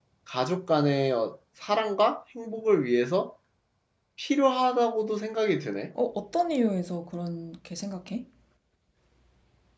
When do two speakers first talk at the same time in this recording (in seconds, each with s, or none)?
none